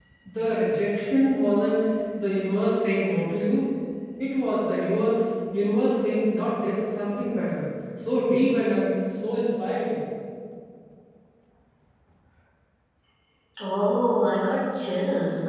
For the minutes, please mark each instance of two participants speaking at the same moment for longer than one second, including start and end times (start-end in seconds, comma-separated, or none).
none